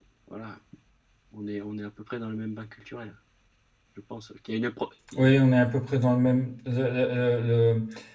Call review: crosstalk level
none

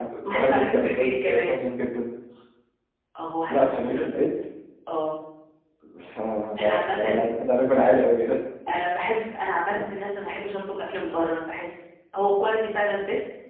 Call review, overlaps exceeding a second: present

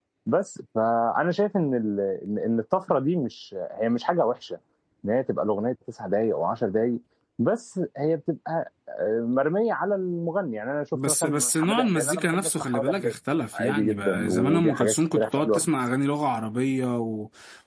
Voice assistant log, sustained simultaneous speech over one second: present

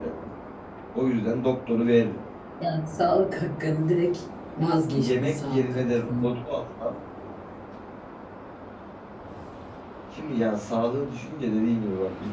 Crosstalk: present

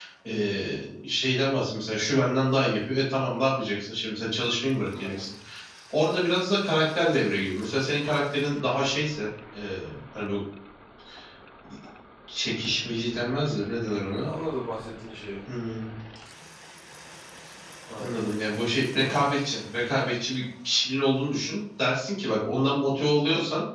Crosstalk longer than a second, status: none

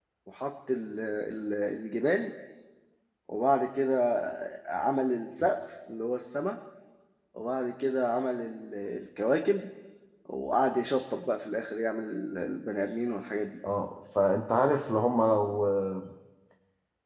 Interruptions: none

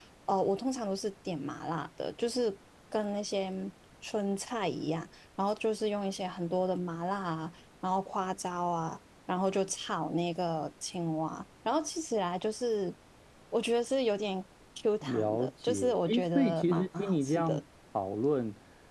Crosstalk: present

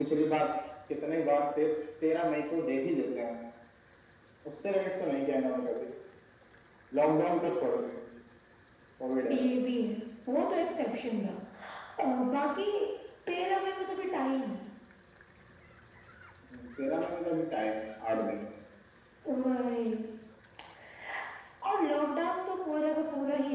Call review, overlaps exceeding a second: none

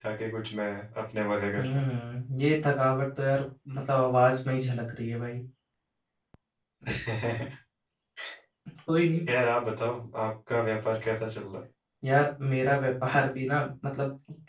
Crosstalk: none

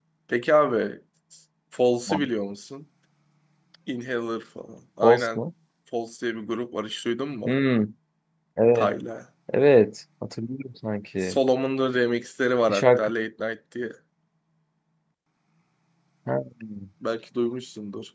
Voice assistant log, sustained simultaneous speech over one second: none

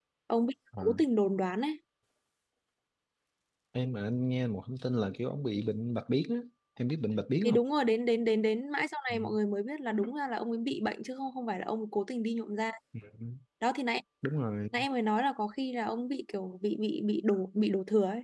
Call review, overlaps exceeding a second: none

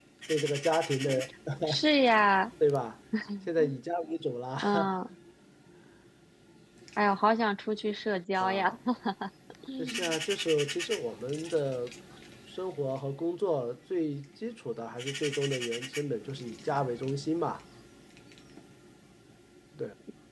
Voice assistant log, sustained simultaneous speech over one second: none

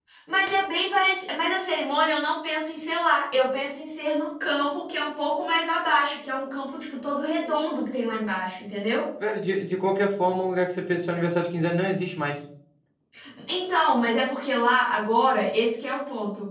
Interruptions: none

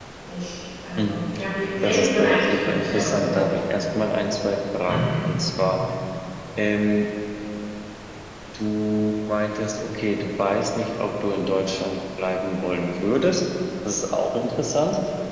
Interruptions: present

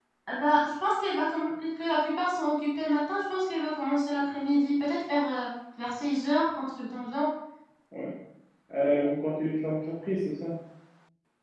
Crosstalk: none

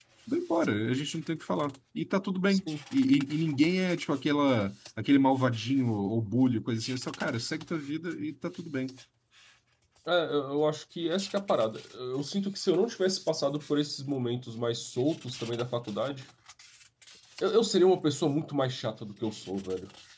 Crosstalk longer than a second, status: none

